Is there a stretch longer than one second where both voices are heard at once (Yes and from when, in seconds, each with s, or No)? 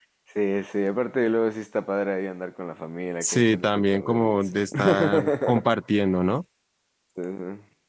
Yes, from 3.2 s